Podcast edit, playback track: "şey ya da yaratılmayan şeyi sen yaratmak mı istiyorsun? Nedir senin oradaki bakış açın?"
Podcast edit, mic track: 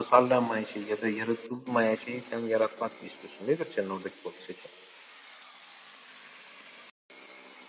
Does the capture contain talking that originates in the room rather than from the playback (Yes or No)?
No